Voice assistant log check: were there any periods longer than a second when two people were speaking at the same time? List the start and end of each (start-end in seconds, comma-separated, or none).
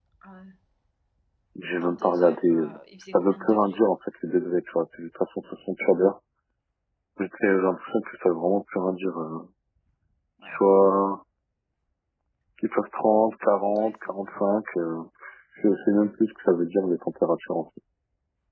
1.8-3.6